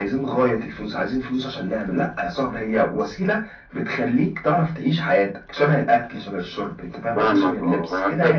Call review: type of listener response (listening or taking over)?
taking over